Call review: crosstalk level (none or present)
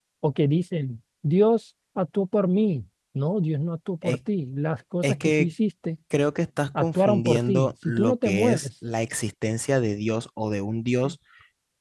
present